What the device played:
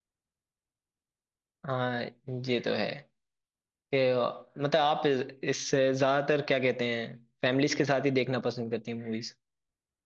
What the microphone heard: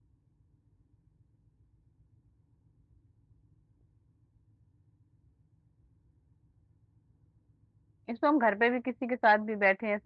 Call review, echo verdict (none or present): none